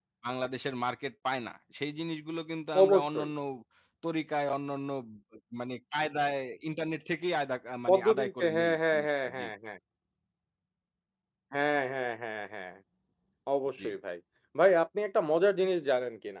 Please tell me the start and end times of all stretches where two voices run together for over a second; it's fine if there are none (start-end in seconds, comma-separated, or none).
7.9-9.5